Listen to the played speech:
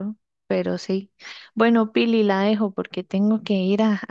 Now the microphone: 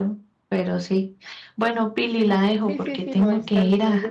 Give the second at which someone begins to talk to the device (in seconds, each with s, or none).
2.0 s